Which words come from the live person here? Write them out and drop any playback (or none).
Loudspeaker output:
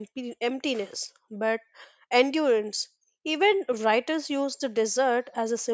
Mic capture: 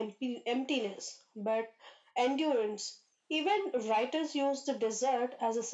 none